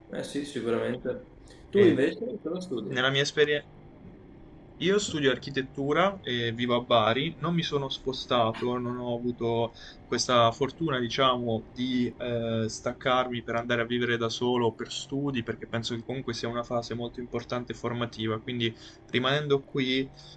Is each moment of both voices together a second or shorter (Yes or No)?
Yes